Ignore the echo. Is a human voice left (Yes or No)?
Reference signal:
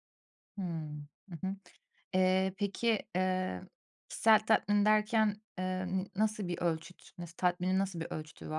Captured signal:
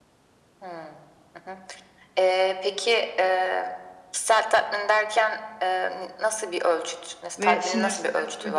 Yes